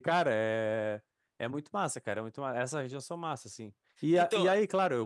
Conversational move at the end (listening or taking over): listening